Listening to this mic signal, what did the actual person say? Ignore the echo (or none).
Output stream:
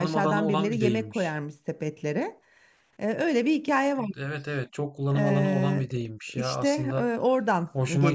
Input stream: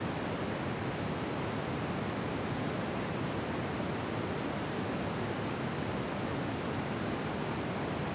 none